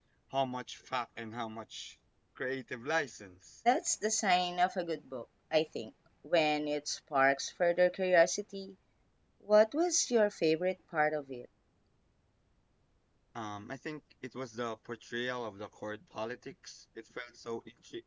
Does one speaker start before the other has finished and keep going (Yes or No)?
No